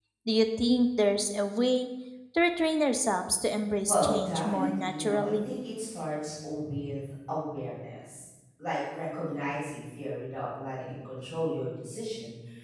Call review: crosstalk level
present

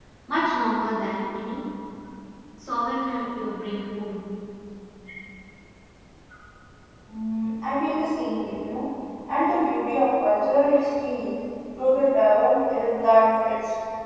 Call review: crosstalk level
none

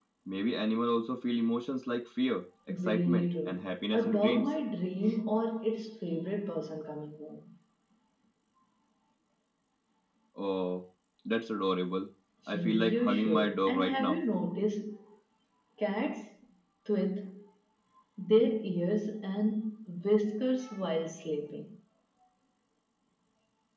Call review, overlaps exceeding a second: present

